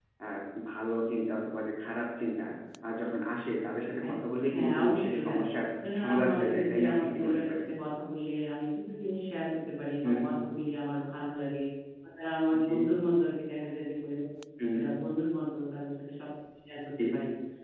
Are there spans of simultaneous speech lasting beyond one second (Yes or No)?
Yes